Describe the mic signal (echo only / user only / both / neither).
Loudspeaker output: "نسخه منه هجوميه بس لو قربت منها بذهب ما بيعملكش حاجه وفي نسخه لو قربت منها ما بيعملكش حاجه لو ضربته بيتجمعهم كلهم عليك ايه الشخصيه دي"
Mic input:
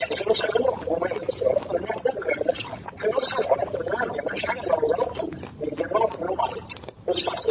echo only